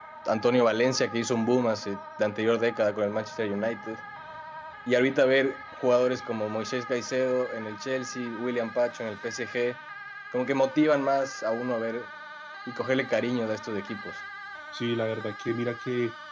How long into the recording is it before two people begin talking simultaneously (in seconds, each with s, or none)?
none